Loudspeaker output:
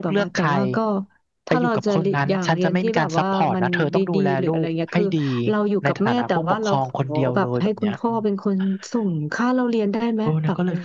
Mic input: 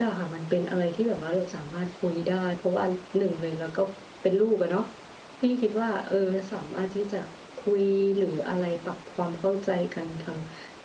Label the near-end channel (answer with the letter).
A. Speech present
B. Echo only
A